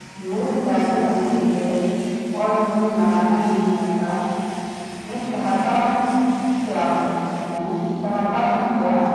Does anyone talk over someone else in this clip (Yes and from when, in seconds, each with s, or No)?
No